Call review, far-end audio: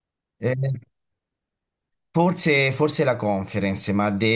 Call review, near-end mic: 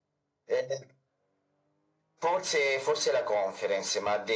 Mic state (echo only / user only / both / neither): echo only